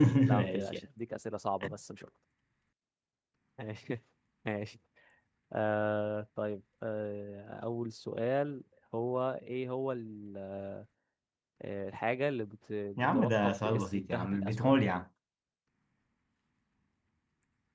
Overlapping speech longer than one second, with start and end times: 13.0-14.6

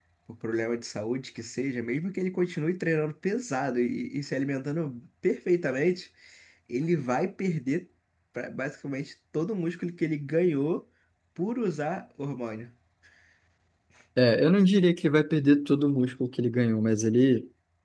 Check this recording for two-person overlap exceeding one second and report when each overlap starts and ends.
none

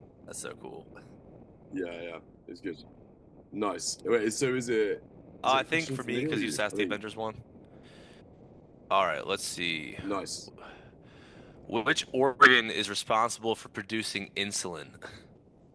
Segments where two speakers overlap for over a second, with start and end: 5.5-7.0

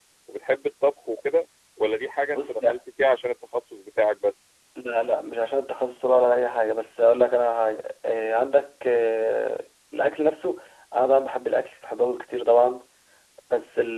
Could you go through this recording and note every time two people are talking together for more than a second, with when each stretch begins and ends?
none

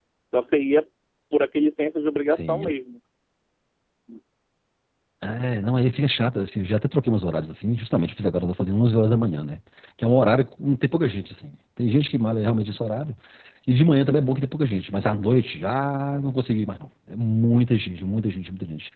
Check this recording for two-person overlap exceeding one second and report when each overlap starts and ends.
none

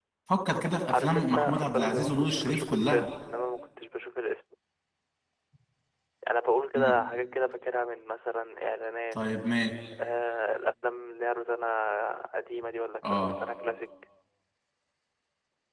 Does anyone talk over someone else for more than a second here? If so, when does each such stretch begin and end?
0.9-3.1

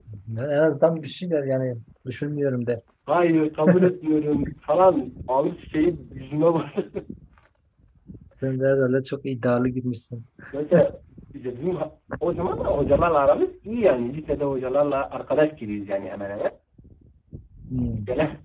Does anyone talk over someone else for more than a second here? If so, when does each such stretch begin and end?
none

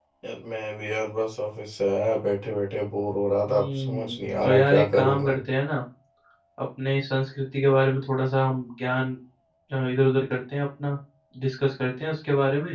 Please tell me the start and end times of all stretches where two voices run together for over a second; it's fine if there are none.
3.5-5.4

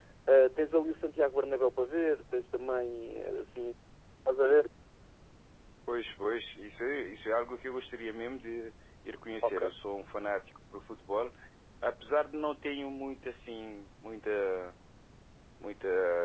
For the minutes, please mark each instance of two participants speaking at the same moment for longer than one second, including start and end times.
none

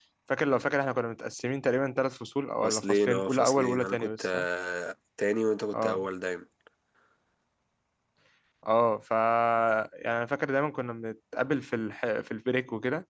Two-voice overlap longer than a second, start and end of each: 2.6-4.5

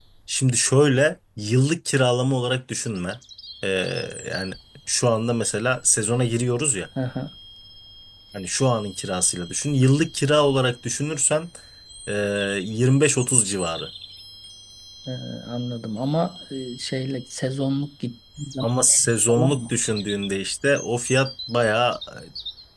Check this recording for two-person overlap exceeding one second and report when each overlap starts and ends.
none

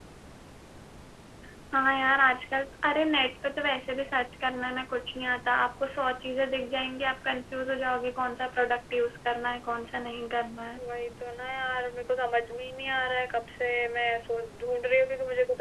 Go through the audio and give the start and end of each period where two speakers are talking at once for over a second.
none

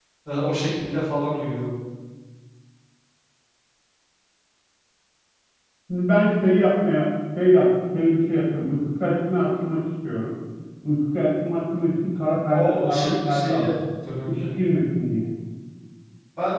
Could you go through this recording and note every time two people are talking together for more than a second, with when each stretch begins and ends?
12.5-13.7

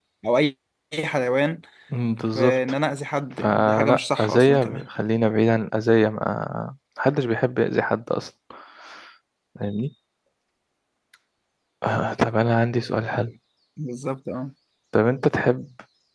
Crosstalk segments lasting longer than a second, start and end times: 3.4-4.8

